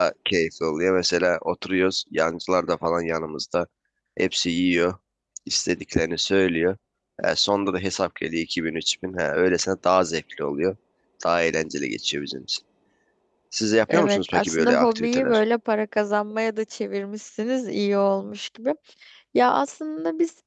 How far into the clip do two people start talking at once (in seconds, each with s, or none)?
13.9 s